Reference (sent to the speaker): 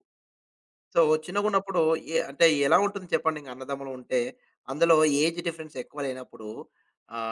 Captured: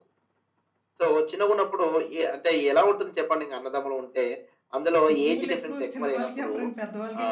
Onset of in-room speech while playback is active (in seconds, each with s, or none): 5.1 s